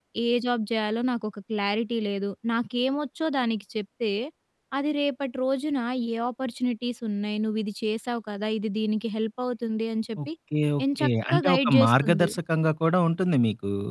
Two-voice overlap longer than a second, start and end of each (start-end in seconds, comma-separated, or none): 11.0-12.3